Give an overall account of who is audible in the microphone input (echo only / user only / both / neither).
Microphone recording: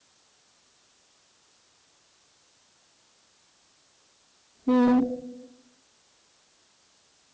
user only